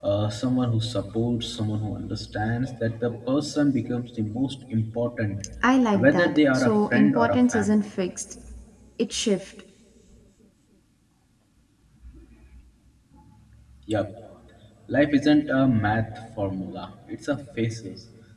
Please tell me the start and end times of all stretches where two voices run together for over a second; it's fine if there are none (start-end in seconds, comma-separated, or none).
6.0-7.8